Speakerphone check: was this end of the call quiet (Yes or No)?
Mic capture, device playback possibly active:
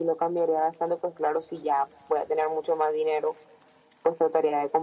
Yes